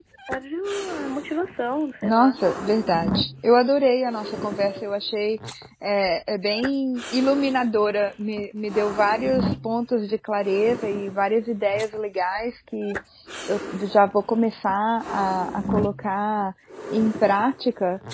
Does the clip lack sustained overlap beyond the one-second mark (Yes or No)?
Yes